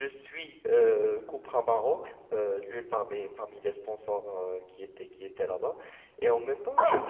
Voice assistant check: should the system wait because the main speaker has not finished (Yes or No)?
Yes